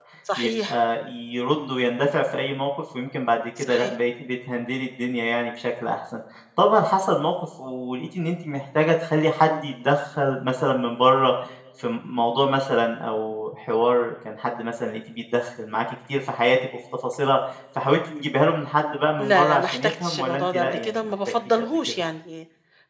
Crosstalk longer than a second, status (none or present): present